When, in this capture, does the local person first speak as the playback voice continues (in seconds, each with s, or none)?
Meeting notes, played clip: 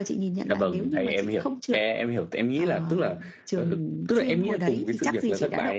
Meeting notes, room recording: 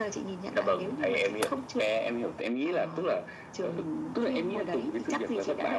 none